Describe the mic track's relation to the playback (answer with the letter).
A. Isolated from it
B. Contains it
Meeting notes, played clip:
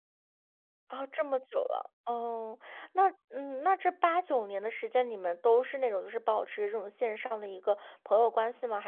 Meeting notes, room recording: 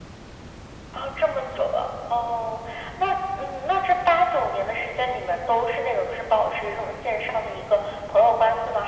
B